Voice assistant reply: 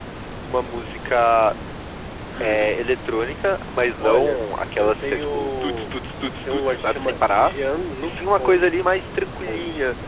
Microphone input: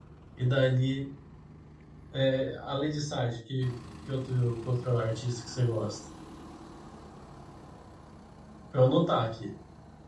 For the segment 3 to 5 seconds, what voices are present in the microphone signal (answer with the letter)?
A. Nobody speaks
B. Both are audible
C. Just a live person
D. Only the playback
C